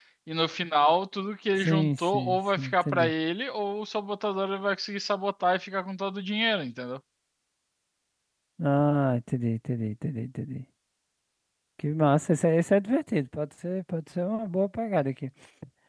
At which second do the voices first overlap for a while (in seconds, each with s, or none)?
1.6 s